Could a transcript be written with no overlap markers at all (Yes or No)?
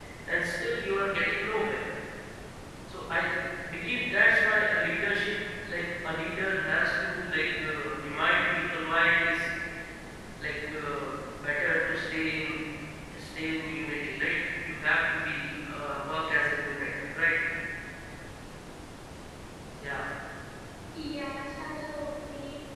Yes